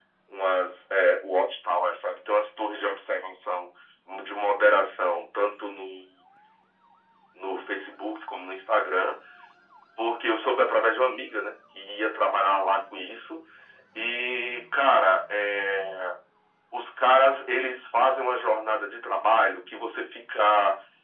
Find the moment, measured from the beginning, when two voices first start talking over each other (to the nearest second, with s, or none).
none